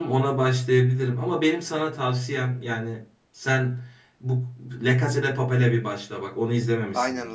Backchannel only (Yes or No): No